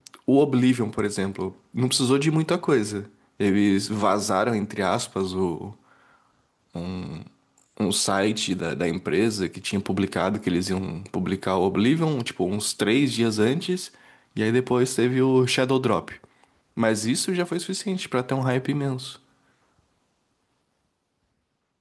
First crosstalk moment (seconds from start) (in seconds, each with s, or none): none